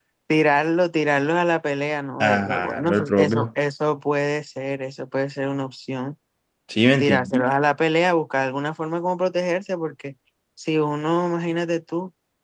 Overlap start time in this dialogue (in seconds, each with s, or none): 2.2 s